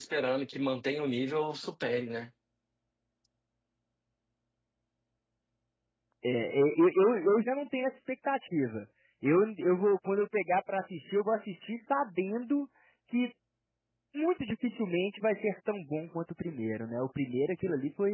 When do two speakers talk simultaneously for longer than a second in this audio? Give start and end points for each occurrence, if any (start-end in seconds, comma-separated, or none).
none